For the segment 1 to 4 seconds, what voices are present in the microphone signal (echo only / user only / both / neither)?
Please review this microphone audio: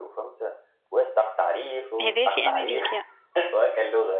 both